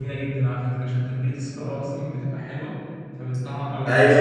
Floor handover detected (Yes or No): Yes